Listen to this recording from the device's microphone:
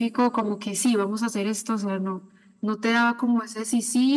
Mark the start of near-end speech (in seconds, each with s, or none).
none